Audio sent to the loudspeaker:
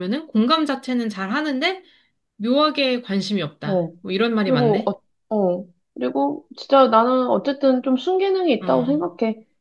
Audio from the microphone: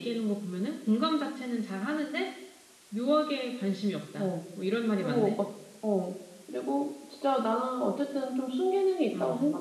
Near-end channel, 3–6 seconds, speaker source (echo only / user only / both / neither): echo only